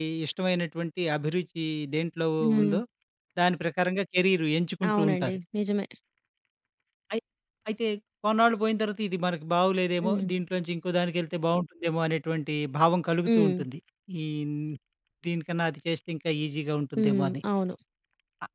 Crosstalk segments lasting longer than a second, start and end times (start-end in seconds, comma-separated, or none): none